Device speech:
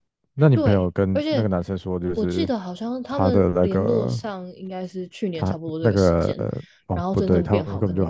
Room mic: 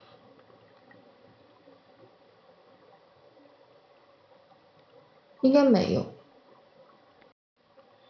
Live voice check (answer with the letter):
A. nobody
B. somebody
B